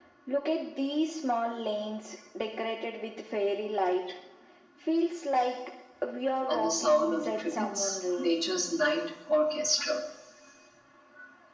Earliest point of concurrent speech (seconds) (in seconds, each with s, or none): 6.5 s